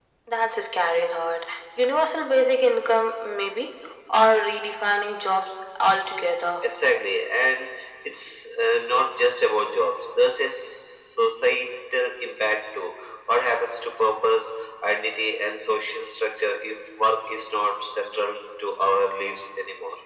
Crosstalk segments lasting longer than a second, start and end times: none

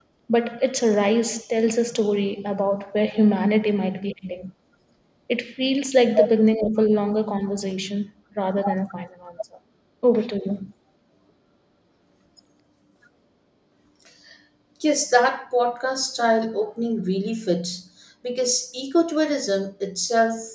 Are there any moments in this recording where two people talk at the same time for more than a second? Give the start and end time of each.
none

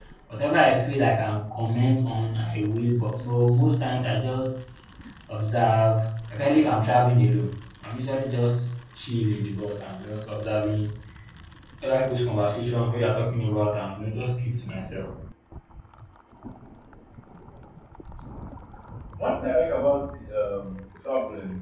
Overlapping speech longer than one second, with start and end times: none

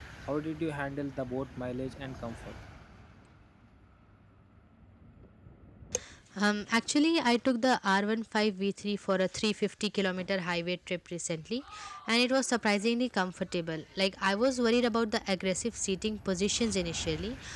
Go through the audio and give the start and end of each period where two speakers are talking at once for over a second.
none

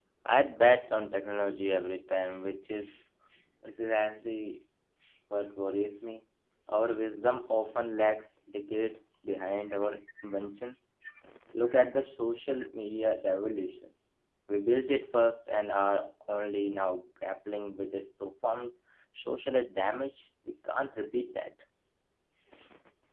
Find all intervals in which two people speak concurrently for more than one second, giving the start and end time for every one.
none

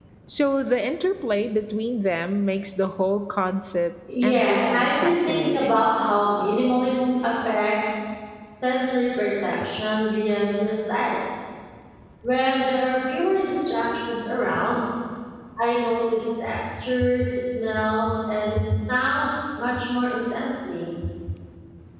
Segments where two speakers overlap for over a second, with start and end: 4.2-5.9

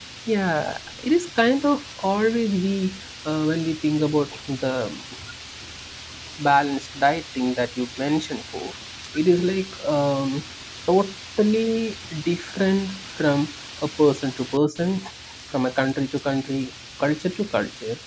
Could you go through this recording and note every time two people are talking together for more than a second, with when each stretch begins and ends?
none

